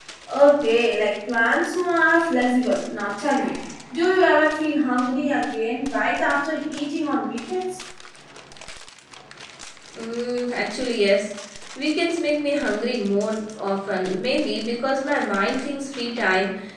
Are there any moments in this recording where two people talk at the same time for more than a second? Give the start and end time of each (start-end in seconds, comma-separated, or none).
none